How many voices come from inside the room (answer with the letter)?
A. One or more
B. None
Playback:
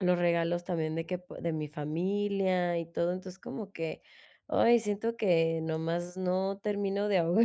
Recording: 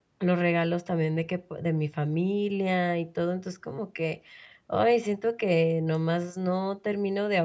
B